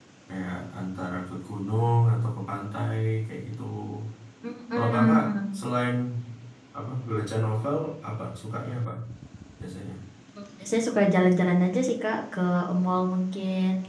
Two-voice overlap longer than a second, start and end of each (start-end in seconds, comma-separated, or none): none